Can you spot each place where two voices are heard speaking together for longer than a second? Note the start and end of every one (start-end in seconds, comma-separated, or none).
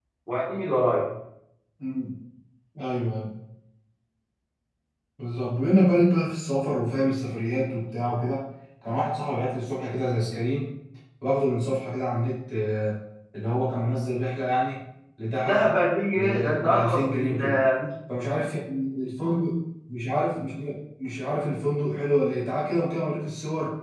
16.1-17.4